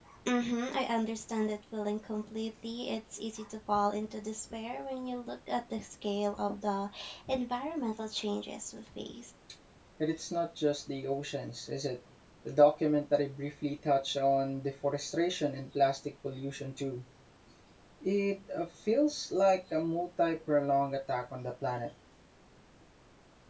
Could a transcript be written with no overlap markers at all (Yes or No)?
Yes